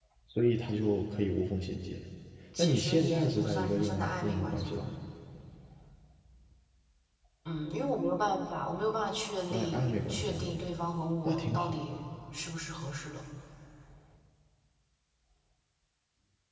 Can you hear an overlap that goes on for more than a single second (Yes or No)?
Yes